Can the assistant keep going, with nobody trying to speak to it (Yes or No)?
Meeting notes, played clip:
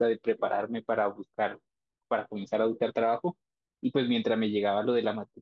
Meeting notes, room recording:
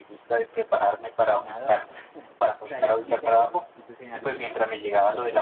No